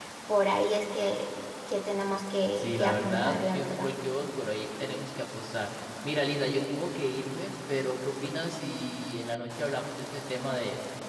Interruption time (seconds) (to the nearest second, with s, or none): 3 s